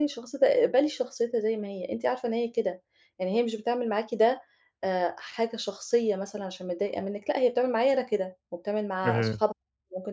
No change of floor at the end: Yes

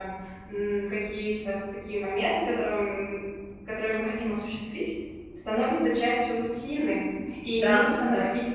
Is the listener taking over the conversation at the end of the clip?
No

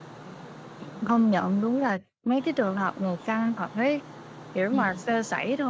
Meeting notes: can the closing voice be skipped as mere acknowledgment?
Yes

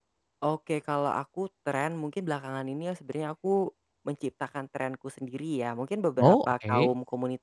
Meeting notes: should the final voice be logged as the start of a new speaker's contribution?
No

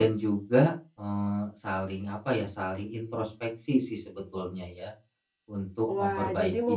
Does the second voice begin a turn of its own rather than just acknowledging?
Yes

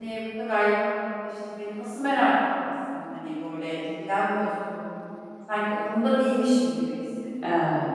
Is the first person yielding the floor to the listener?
No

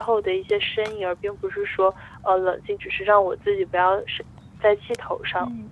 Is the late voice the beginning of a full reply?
Yes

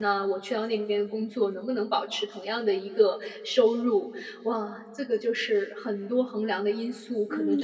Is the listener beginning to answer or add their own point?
Yes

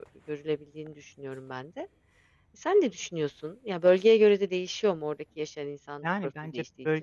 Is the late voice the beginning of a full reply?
Yes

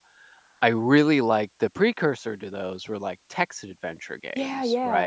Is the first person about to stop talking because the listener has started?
No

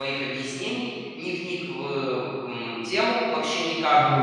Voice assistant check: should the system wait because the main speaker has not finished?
Yes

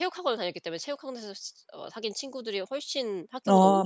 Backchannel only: No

